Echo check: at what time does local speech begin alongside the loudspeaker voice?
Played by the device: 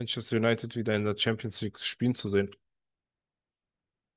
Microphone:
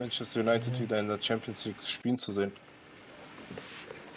0.5 s

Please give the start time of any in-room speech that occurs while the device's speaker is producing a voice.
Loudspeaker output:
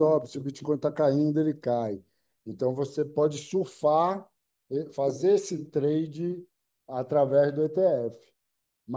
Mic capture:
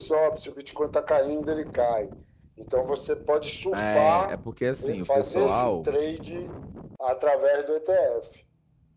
3.7 s

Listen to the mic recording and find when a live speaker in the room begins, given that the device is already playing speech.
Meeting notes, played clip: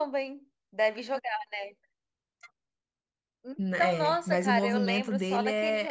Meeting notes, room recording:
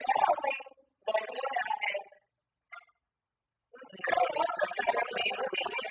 none

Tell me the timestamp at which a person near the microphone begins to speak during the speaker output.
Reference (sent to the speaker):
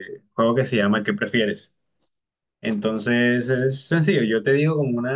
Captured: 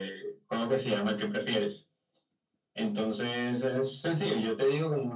none

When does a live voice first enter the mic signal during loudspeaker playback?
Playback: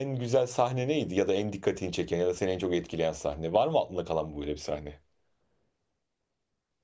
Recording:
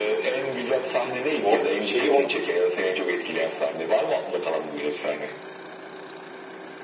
1.4 s

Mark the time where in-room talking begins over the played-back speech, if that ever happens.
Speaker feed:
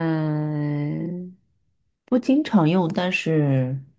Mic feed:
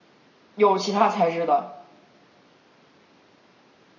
0.5 s

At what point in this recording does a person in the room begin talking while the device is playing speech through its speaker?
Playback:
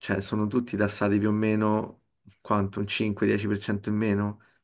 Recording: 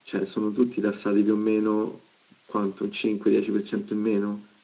none

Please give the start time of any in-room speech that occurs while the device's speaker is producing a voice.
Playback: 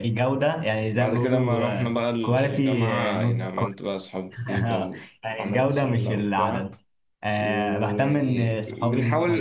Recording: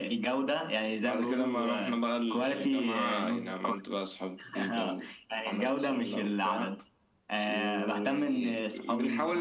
none

